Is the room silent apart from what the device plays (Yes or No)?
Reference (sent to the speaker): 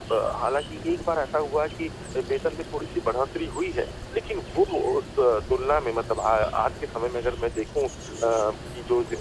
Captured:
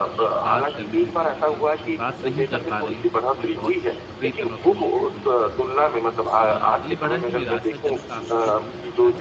No